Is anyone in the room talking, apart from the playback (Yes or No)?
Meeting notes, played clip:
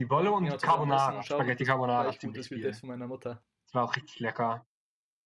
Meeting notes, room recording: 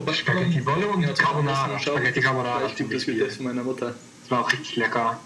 No